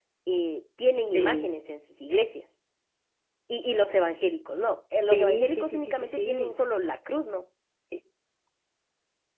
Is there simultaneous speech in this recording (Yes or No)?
Yes